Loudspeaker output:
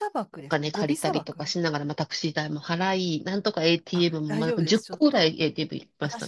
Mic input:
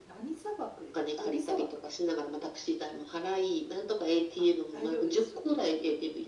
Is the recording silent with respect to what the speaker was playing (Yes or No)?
No